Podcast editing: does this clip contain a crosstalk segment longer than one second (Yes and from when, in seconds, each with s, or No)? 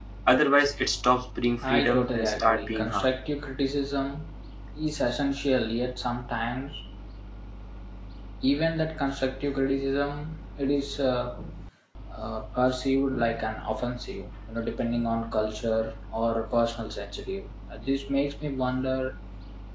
Yes, from 1.6 s